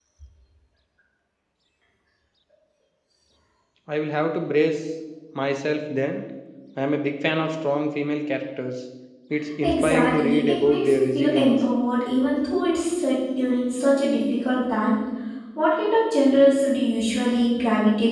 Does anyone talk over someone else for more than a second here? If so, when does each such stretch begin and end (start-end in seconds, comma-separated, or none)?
9.6-11.6